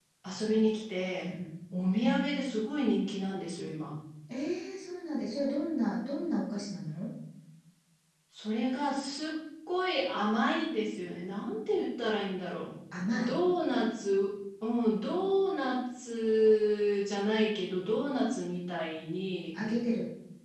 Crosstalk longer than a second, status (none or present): none